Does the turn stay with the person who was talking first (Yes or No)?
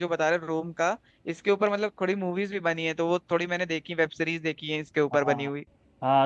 No